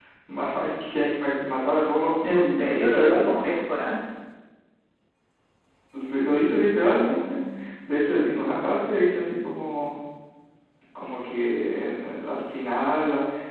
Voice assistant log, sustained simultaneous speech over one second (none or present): present